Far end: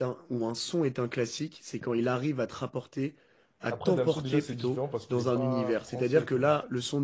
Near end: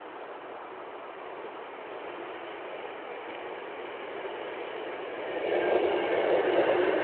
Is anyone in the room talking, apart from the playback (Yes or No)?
No